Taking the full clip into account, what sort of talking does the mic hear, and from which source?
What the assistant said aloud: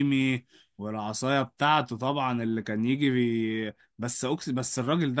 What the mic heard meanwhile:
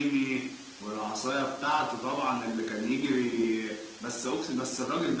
echo only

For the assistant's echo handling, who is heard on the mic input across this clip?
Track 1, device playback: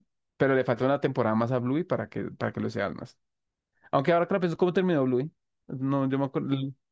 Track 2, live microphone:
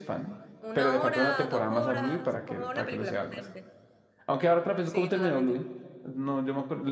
both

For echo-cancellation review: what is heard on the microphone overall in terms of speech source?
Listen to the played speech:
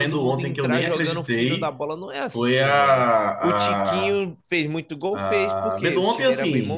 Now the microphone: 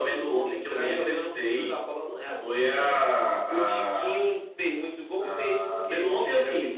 echo only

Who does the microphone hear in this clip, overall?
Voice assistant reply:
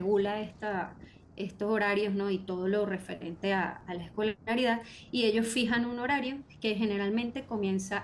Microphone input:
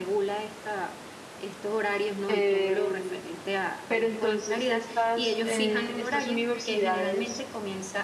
both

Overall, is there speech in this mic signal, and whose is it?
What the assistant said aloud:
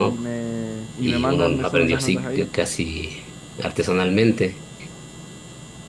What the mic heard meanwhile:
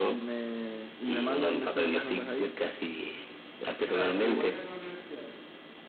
both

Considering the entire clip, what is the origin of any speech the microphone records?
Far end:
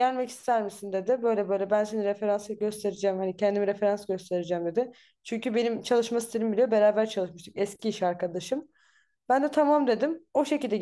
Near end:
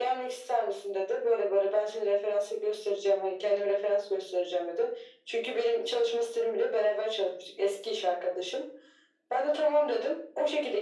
echo only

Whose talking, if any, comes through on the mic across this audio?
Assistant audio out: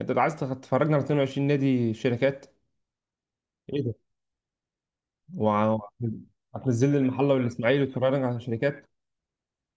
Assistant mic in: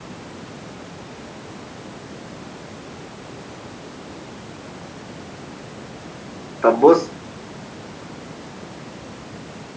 user only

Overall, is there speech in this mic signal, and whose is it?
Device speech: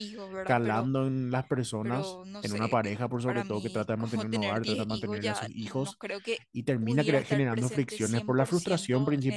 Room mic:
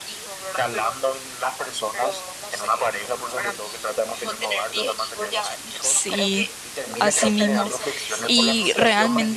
both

